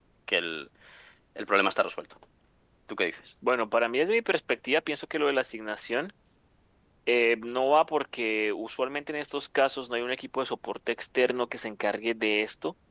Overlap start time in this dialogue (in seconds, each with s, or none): none